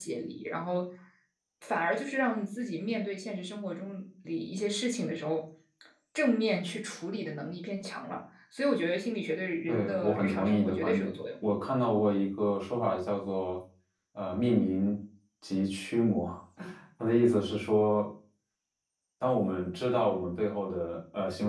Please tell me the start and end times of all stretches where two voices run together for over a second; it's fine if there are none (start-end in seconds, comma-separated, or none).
9.7-11.2